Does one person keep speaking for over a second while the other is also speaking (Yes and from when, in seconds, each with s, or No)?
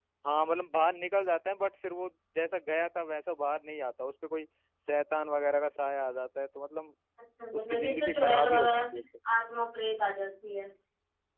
Yes, from 7.6 s